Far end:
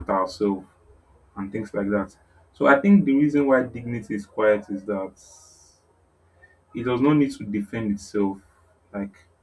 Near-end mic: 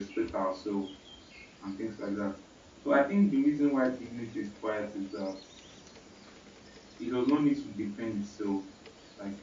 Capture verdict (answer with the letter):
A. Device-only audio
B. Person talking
A